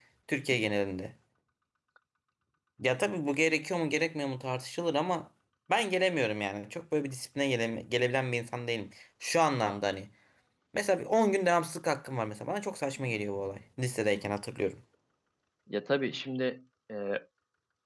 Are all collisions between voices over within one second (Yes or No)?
Yes